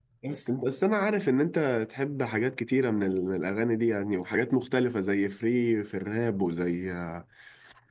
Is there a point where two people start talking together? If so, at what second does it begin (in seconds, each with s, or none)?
none